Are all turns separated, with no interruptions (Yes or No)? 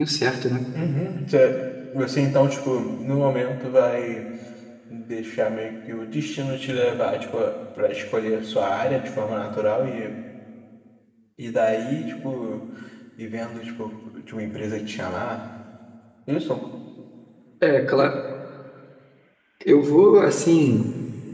Yes